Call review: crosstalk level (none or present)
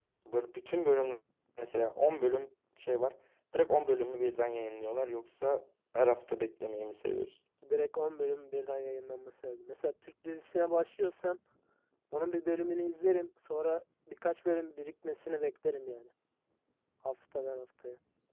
none